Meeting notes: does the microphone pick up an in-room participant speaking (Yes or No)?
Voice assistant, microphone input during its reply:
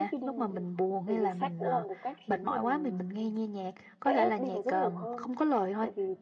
Yes